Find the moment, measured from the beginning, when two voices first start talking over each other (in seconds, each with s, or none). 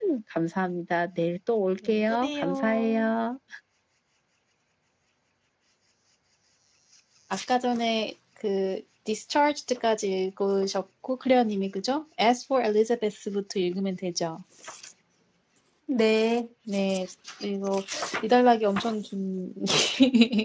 1.8 s